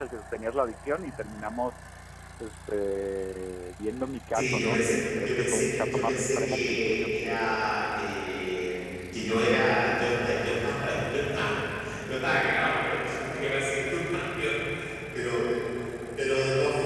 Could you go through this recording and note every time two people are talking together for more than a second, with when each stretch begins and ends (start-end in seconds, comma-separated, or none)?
4.3-7.1